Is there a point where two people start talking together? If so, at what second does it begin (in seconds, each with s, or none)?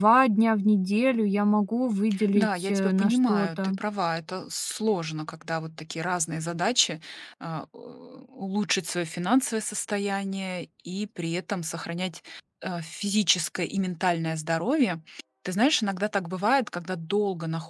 2.1 s